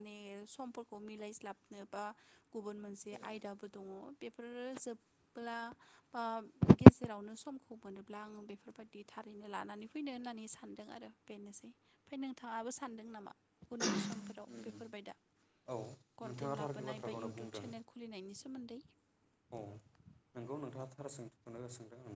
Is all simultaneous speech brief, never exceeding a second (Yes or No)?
No